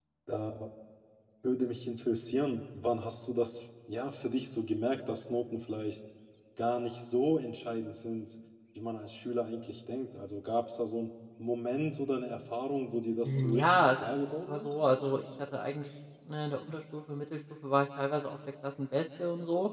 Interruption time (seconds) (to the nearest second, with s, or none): 13 s